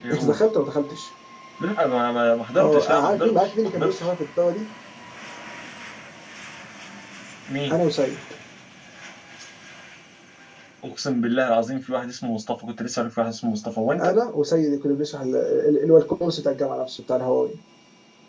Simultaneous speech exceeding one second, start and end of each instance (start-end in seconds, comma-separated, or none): 2.6-4.1